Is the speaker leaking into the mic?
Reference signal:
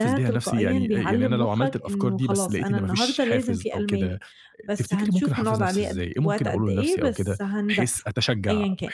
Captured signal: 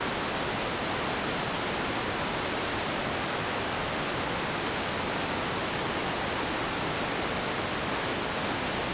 No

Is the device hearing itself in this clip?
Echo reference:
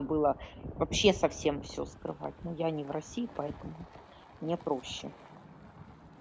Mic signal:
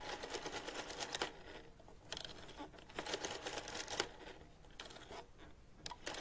No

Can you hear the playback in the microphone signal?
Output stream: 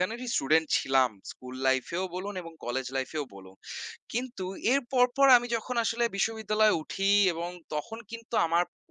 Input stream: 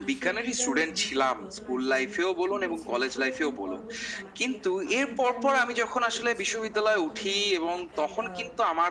Yes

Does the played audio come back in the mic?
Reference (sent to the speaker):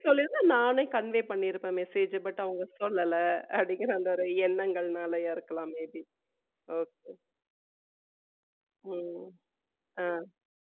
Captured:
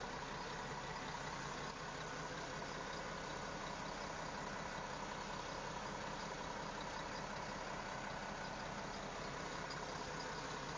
No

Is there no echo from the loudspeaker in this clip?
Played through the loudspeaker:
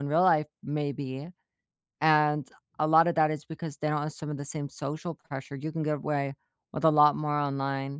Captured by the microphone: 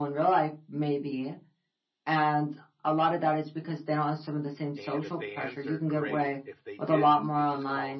No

